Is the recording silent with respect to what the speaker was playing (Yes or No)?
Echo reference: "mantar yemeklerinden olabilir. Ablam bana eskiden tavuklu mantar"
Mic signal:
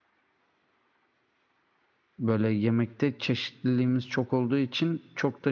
Yes